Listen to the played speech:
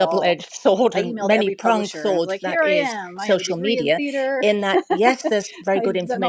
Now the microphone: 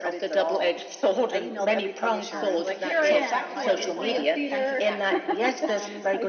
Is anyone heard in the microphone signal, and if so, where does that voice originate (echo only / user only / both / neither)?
both